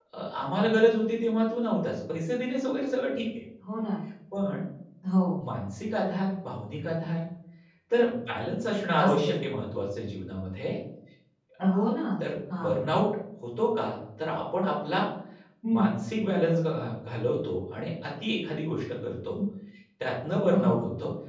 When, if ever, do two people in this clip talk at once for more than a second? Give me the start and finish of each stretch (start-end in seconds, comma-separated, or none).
none